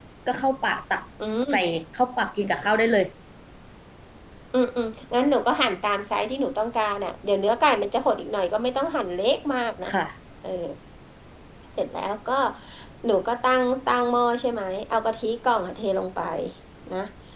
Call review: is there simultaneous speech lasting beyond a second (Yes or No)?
No